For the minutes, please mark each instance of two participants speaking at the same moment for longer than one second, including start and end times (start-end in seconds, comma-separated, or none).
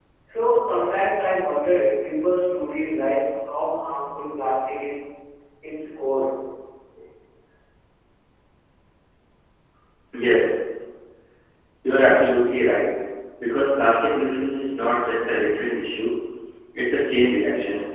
none